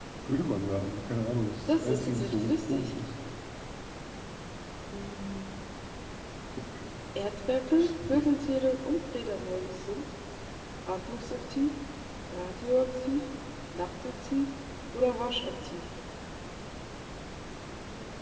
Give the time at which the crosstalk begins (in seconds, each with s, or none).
1.7 s